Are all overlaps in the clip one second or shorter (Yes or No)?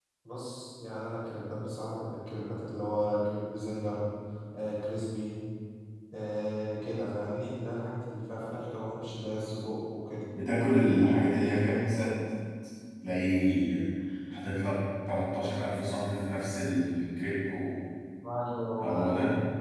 Yes